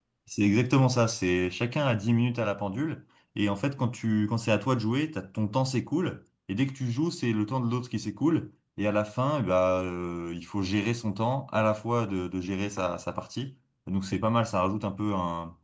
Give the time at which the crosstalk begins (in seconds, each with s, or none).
none